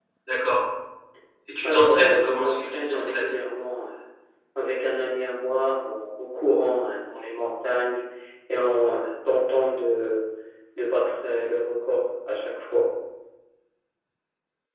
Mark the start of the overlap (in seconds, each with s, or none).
1.6 s